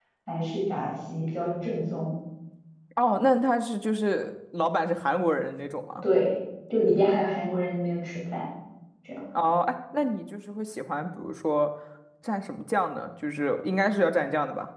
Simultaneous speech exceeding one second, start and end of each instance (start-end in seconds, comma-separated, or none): none